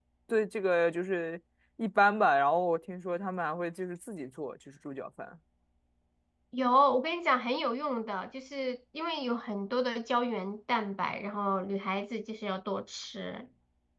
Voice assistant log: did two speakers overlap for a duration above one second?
No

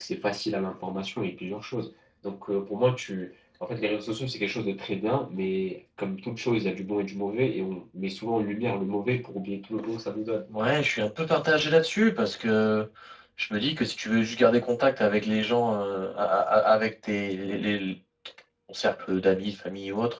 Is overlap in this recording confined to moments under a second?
Yes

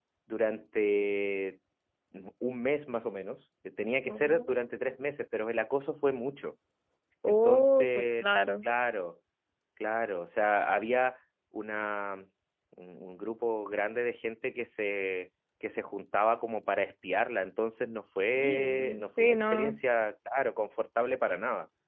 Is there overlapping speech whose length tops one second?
Yes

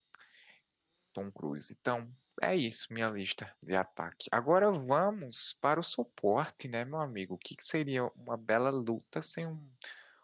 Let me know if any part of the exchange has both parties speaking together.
No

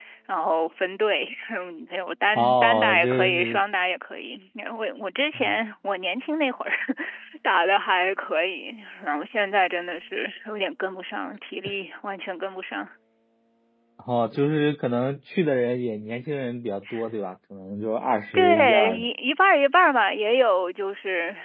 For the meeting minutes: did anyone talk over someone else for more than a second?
Yes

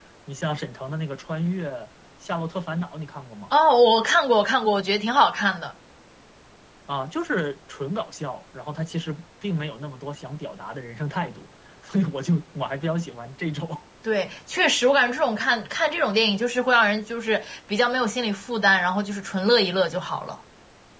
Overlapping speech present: No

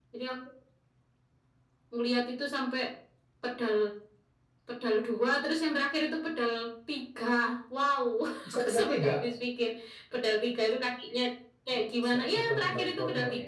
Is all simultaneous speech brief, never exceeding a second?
No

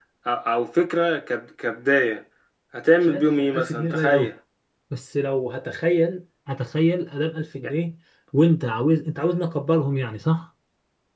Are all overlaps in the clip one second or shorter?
No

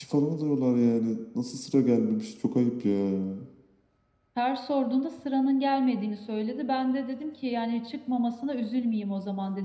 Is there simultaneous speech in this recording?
No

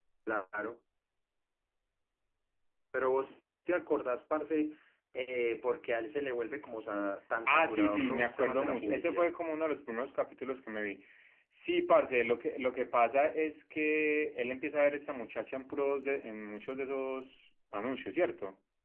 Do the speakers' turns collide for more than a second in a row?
Yes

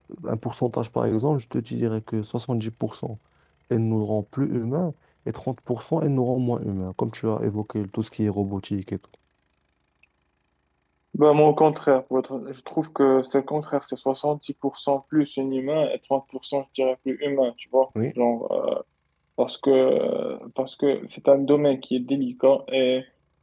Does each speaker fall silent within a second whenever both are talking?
Yes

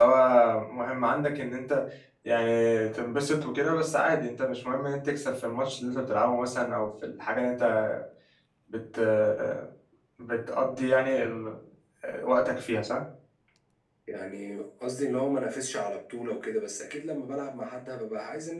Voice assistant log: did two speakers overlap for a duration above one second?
No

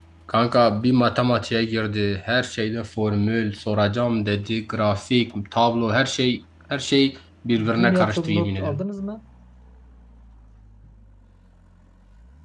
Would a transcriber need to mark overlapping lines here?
Yes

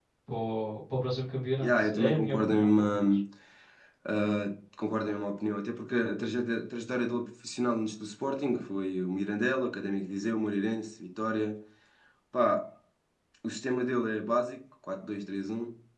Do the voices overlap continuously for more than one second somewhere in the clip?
Yes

